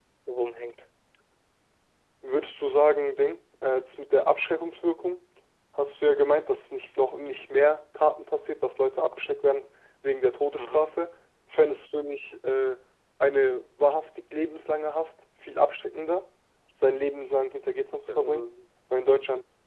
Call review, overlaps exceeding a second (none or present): none